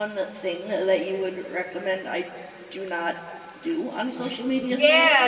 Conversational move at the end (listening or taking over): taking over